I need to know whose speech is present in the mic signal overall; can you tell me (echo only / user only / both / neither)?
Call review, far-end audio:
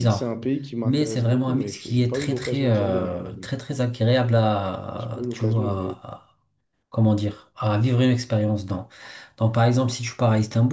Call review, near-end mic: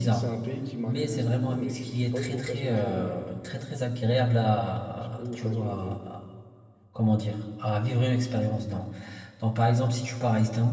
echo only